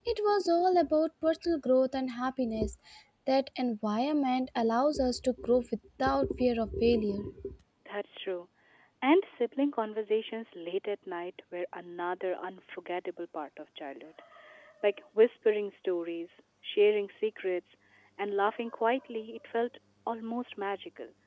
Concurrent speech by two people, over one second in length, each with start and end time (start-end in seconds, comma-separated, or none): none